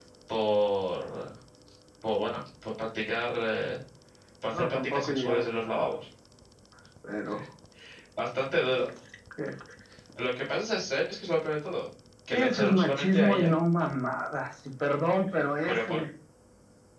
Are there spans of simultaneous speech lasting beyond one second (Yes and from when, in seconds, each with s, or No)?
Yes, from 4.5 s